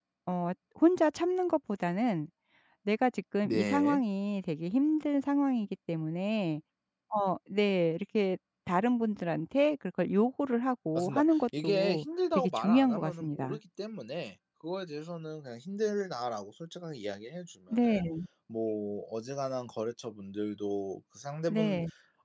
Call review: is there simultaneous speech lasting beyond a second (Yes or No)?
Yes